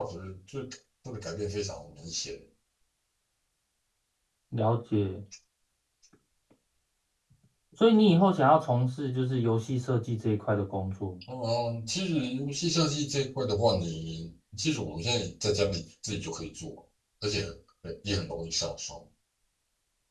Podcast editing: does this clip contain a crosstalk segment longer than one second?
No

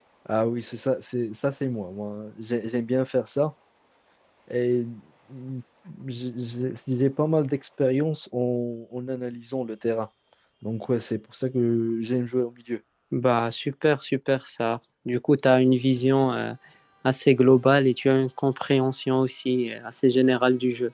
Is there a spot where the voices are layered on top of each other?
No

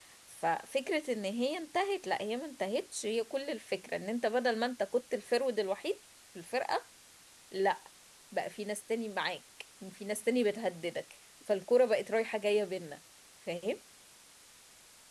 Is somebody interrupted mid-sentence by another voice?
No

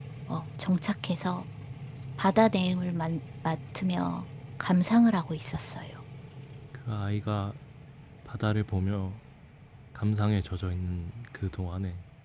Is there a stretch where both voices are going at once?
No

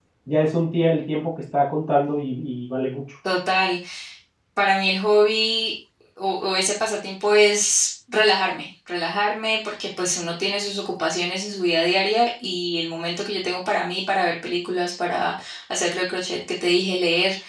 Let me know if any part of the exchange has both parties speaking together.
No

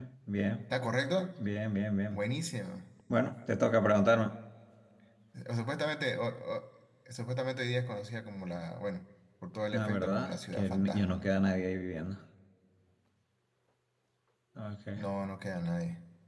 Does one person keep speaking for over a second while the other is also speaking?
Yes, from 9.7 s

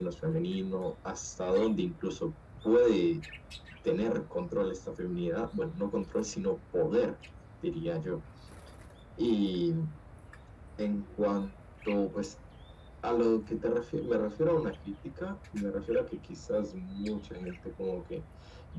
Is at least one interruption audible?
No

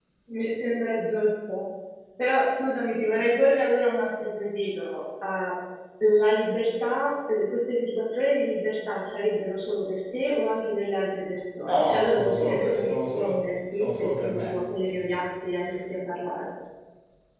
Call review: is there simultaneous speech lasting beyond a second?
Yes, from 11.7 s

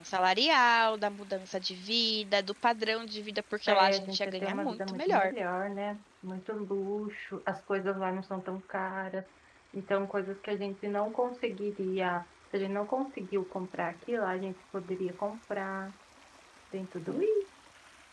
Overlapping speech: Yes, from 3.7 s

